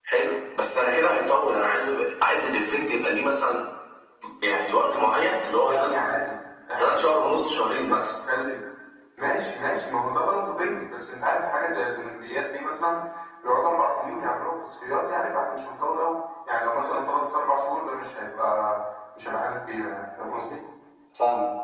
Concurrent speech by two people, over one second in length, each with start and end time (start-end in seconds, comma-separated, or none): 6.8-8.2